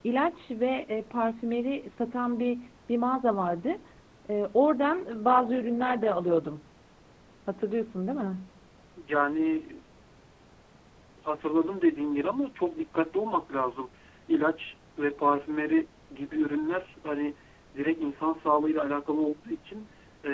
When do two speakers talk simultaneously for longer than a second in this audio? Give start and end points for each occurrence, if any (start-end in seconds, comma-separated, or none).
none